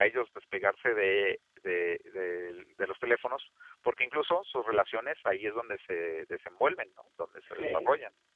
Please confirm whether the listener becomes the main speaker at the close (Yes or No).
Yes